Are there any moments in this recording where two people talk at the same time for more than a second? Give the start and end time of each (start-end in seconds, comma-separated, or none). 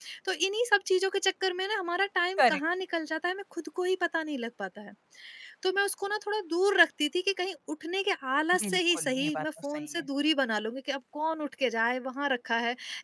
8.6-10.1